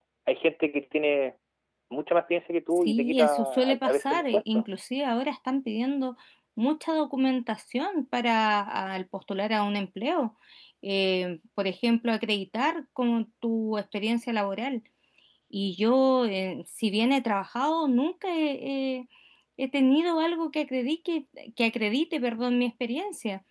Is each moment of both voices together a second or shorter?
No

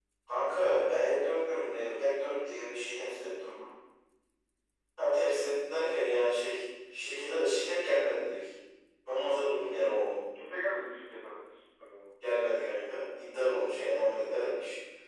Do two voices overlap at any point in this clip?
No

